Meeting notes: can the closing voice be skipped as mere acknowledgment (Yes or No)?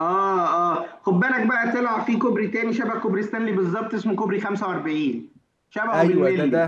No